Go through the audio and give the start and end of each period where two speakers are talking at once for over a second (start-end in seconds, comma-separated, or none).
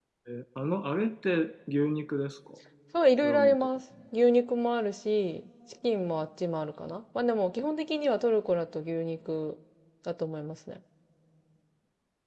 none